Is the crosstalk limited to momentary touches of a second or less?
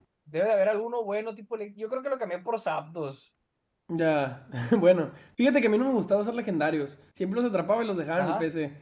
Yes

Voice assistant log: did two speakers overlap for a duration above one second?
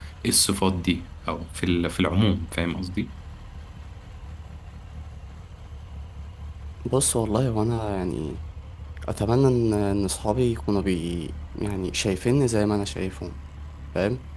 No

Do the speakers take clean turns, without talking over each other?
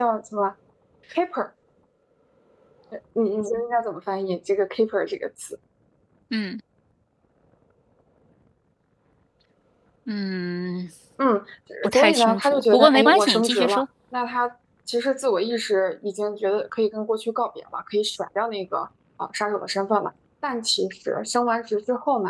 No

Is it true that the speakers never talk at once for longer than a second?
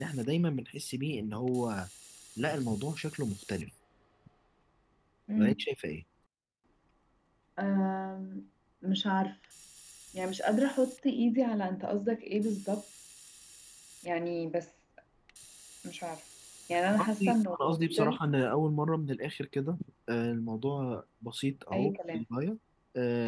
No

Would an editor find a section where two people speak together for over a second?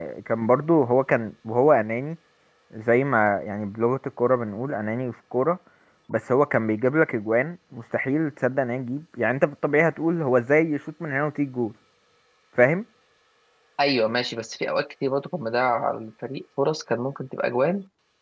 No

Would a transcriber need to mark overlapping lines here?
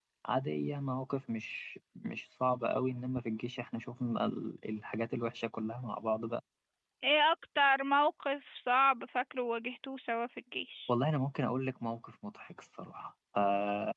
No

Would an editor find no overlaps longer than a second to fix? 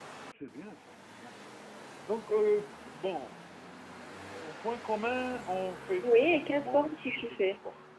No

